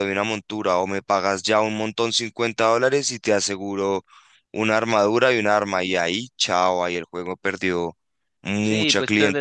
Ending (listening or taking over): taking over